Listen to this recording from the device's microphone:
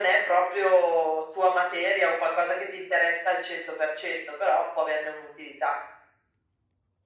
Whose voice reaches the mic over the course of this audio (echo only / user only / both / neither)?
echo only